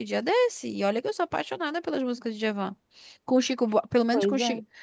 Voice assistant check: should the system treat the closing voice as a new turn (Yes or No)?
No